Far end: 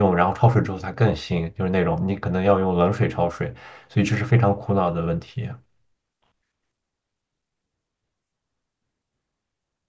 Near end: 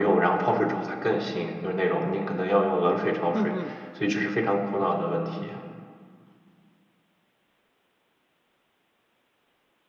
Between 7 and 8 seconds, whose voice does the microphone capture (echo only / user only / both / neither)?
neither